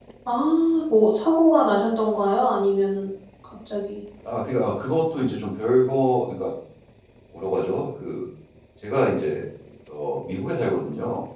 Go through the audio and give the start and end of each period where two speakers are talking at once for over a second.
none

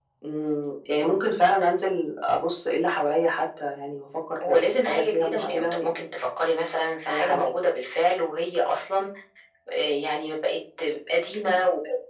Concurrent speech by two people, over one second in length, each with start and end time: 4.5-5.9

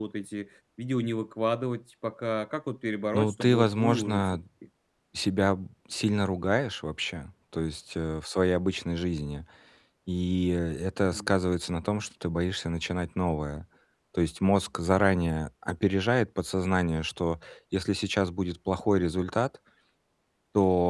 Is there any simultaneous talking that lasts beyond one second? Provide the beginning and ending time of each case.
3.1-4.4

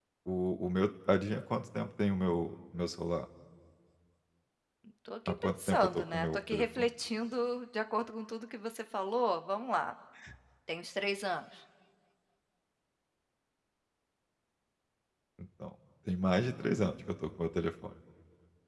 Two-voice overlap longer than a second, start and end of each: 5.3-6.9

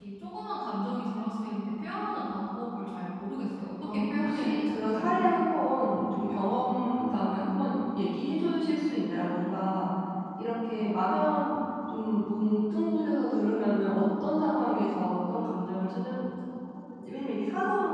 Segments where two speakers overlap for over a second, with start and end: 4.1-5.7

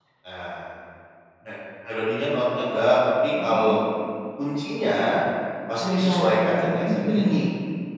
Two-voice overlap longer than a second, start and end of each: 5.8-7.3

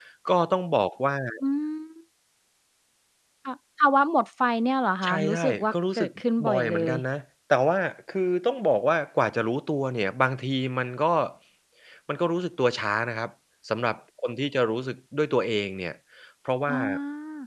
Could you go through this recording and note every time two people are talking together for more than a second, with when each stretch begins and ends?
5.0-6.9

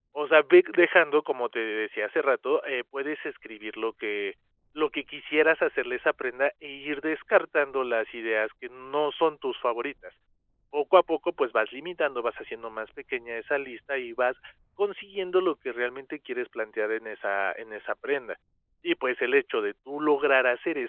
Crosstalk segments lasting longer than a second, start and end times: none

